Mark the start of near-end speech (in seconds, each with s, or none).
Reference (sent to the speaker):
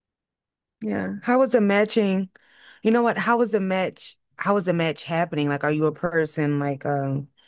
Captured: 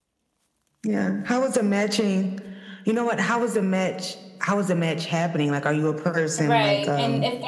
6.4 s